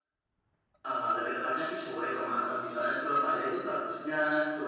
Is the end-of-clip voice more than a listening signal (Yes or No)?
No